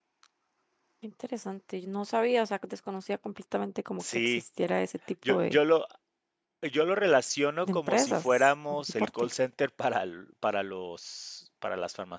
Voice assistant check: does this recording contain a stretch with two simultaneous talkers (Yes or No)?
Yes